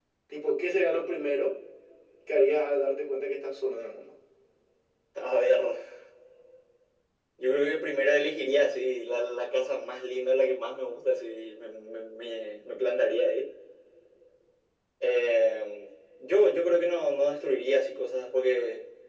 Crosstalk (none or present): none